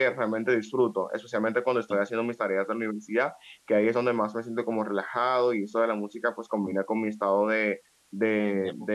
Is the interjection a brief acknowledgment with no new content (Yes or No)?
Yes